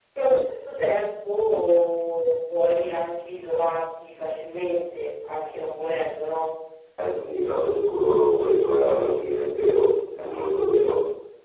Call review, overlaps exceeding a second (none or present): none